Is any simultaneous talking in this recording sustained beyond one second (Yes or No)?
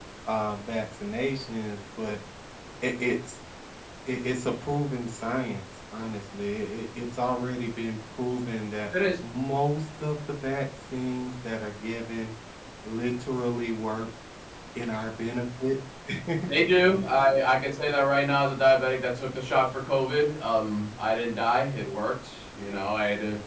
No